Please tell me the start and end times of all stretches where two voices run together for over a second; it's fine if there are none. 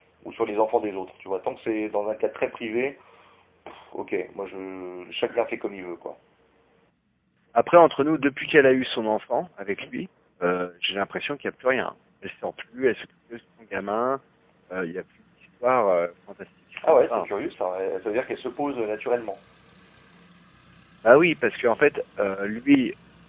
none

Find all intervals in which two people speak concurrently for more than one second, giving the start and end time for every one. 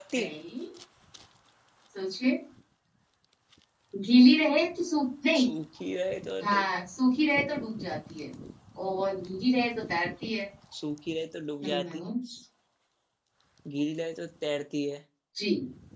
none

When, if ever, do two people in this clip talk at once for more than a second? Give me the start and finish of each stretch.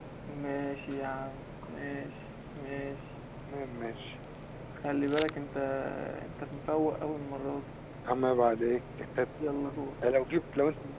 none

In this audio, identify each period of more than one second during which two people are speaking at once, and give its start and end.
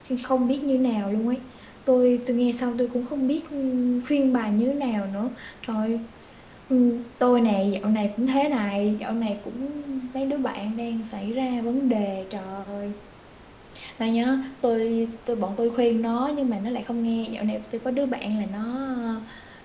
none

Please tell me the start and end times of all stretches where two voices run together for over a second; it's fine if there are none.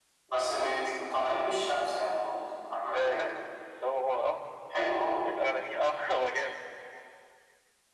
none

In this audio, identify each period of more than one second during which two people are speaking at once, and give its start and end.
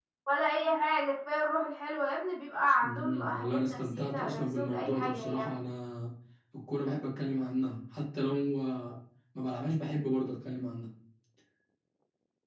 2.8-5.5

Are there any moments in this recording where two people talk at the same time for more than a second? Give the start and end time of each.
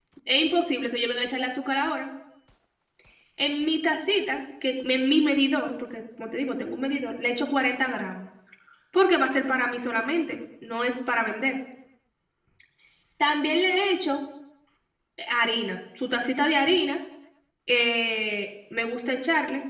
none

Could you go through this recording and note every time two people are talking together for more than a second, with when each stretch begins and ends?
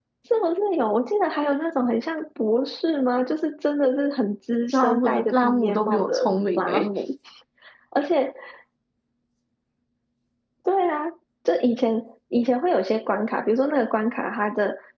4.7-6.1

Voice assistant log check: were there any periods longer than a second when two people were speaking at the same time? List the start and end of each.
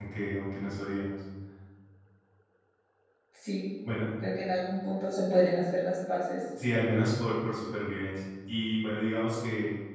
none

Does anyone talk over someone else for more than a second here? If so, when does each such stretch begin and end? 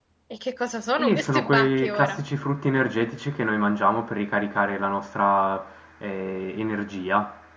0.9-2.2

